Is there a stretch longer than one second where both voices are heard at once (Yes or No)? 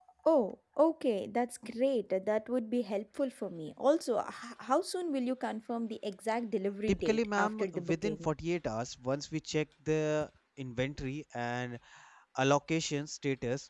Yes